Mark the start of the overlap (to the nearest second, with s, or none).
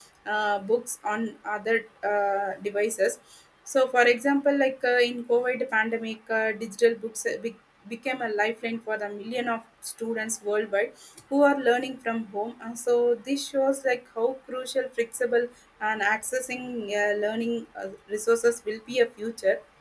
none